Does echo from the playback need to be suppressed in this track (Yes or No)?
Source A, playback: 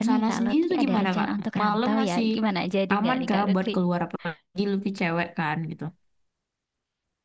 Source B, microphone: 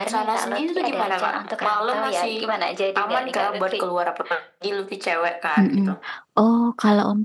Yes